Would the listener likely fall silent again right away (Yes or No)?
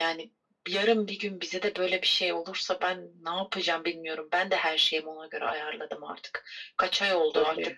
Yes